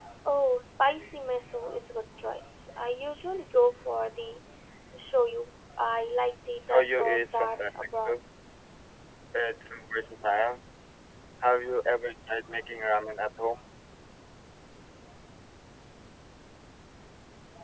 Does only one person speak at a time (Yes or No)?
No